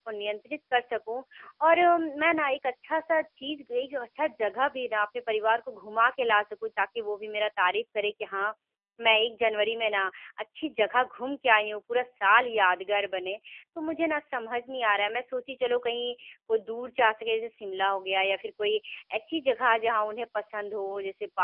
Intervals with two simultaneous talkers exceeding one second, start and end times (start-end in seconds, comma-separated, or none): none